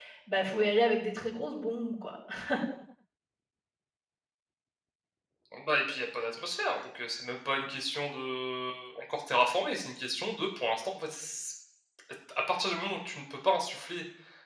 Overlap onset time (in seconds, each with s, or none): none